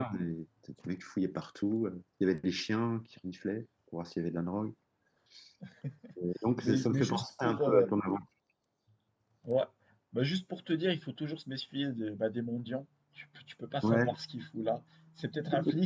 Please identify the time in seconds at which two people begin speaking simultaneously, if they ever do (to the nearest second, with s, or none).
7 s